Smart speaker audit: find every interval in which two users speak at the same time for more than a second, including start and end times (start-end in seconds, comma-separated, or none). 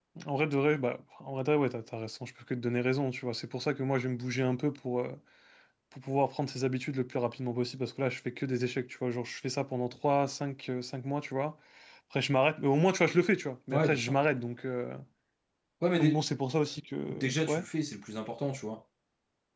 none